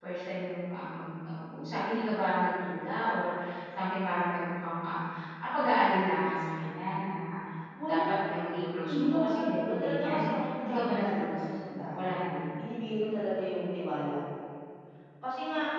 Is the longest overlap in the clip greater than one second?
Yes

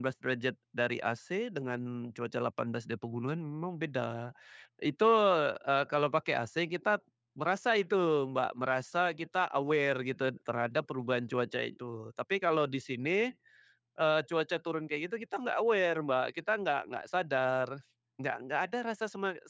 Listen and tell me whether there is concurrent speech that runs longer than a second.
No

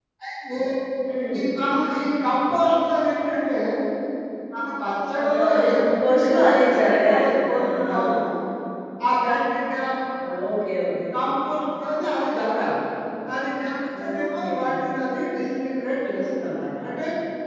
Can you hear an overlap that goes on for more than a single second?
Yes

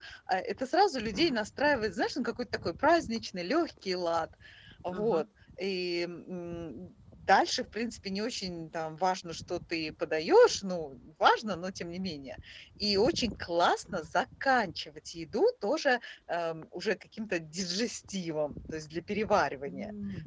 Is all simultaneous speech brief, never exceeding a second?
Yes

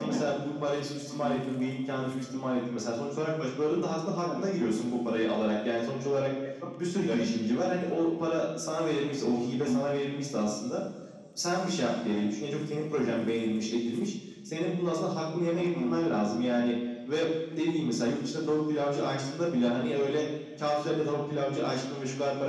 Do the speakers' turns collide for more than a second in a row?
No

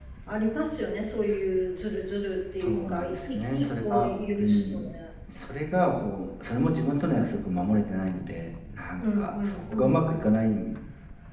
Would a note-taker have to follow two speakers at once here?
Yes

